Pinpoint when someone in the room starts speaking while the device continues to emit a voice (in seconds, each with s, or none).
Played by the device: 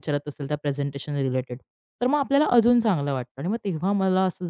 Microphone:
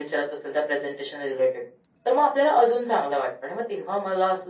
none